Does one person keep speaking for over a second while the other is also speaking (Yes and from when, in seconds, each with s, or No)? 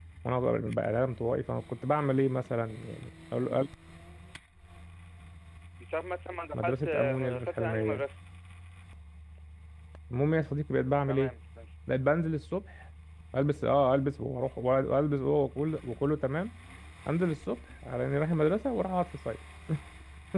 Yes, from 6.5 s